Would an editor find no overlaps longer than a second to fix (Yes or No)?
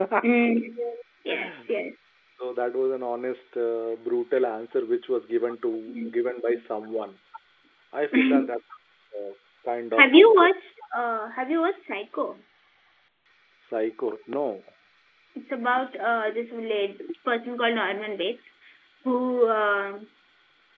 Yes